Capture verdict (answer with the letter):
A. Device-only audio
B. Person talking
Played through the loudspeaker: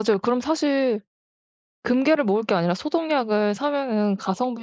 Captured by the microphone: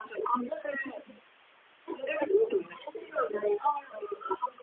A